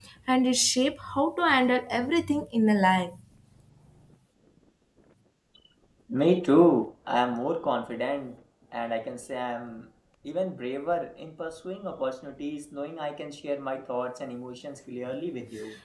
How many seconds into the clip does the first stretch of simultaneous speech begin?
none

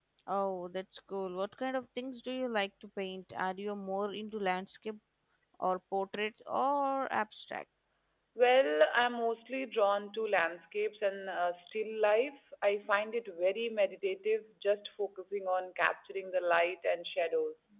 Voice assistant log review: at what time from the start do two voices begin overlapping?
none

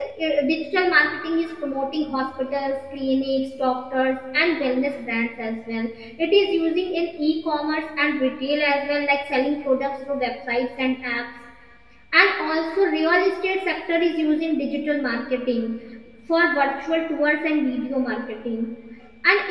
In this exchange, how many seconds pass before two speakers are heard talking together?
none

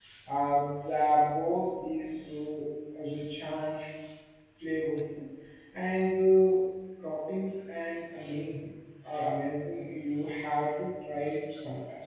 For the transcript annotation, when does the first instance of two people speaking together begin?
none

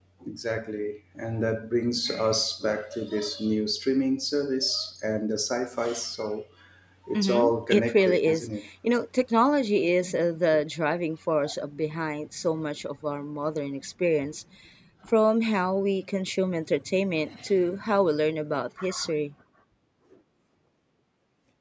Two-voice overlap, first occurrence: 7.2 s

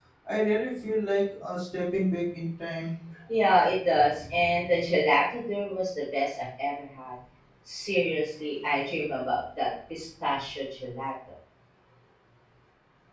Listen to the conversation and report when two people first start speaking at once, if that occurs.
none

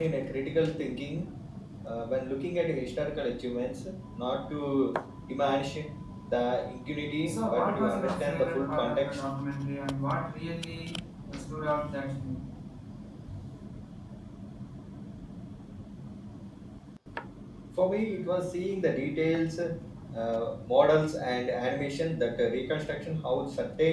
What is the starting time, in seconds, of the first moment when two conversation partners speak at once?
7.3 s

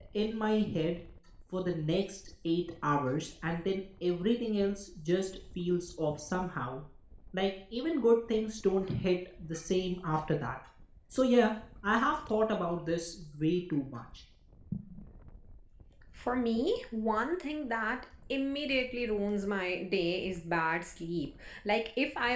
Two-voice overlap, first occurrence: none

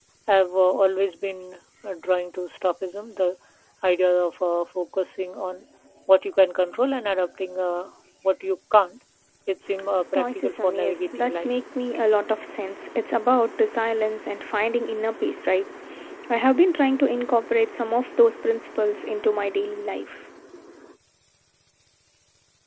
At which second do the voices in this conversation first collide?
10.1 s

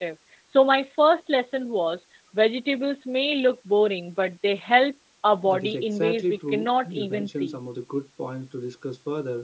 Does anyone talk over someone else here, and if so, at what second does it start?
5.4 s

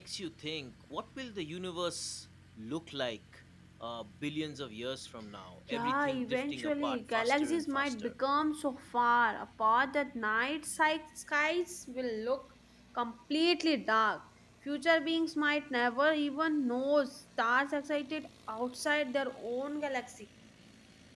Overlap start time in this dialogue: 5.7 s

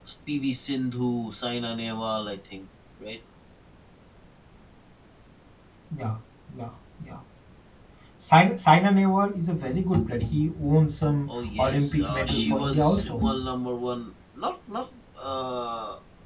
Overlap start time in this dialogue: 11.3 s

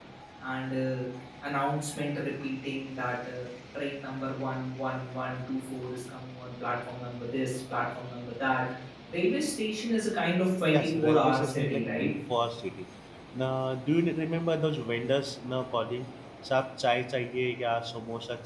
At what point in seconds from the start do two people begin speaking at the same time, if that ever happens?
10.7 s

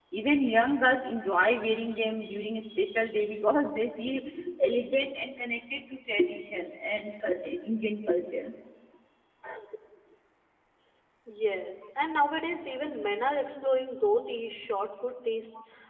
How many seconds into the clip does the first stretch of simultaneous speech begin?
none

